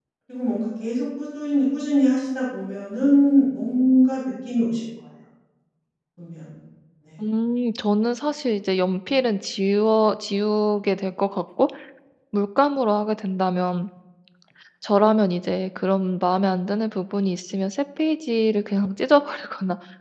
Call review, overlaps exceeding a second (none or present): none